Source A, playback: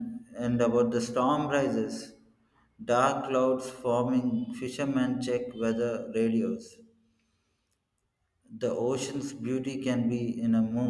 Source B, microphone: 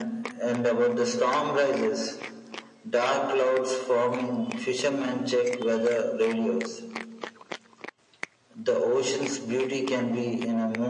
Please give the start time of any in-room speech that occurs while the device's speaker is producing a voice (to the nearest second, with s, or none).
none